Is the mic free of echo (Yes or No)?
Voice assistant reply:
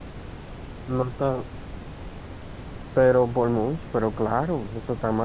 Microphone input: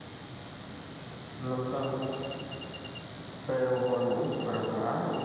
No